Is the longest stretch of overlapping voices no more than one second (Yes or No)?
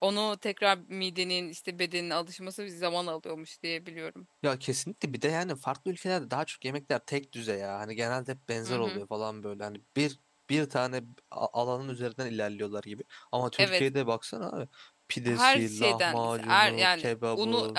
No